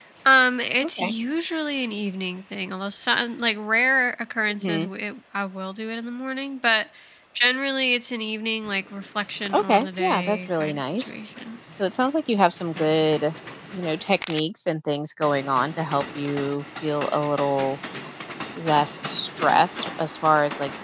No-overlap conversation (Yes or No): No